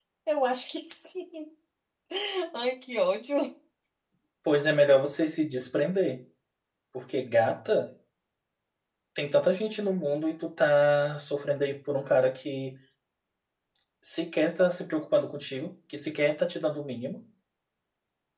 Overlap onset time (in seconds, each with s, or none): none